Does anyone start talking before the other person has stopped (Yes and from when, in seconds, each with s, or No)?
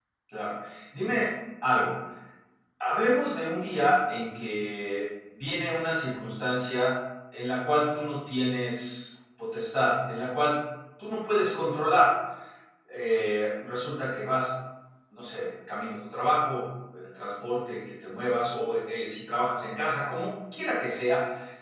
No